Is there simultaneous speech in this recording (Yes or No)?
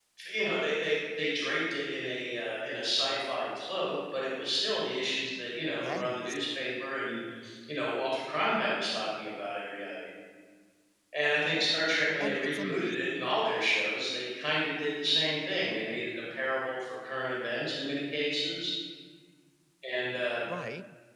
Yes